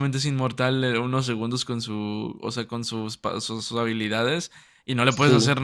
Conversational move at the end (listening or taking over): listening